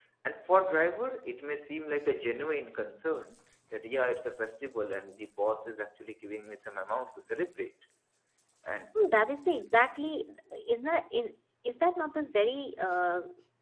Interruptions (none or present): none